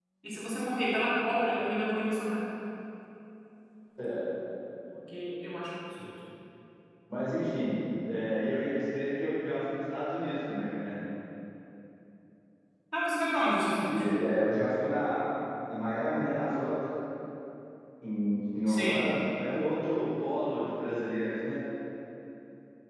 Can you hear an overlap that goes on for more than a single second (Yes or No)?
No